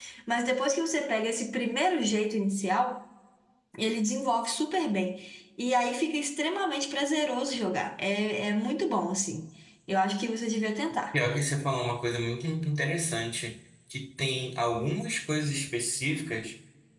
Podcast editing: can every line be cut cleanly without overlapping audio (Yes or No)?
Yes